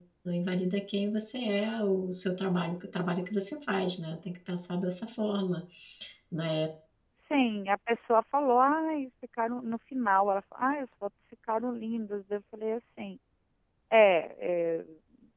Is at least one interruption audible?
No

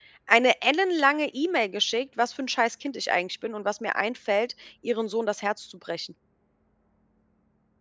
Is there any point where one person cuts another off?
No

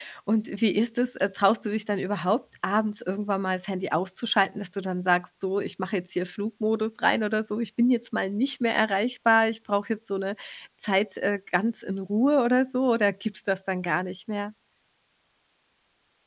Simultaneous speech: No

